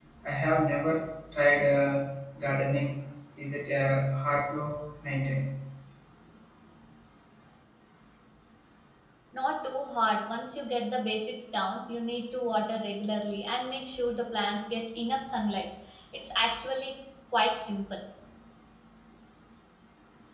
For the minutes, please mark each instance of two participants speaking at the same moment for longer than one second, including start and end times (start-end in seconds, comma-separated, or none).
none